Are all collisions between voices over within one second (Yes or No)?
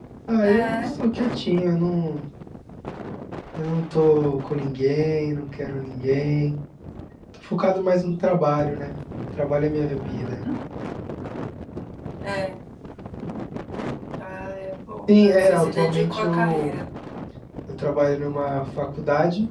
No